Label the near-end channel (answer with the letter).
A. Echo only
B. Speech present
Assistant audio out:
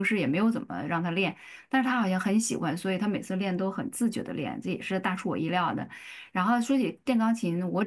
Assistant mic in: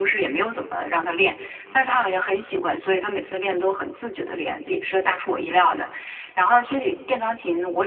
B